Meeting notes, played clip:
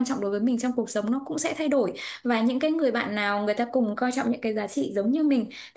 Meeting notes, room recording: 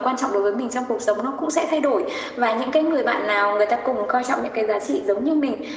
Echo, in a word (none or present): present